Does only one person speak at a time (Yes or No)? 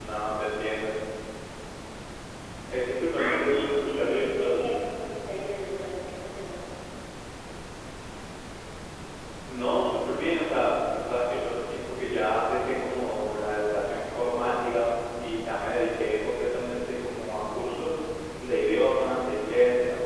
No